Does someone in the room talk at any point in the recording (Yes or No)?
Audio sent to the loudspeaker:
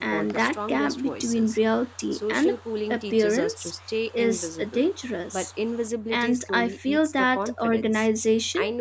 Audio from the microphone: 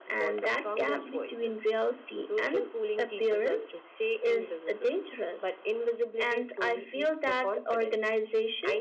No